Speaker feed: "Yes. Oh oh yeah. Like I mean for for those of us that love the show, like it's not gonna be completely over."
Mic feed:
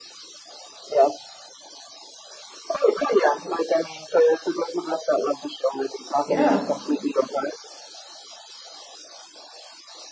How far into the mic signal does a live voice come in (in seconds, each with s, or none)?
6.2 s